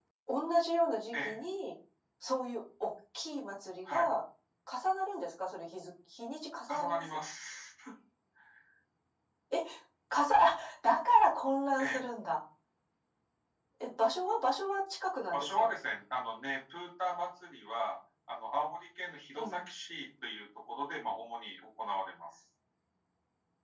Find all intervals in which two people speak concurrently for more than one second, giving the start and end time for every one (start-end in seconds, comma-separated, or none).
none